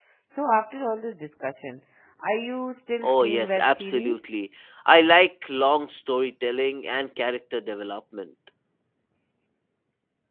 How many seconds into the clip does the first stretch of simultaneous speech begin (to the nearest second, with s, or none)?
3 s